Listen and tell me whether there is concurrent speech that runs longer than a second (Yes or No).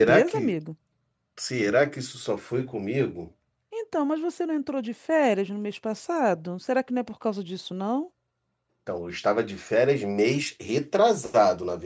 No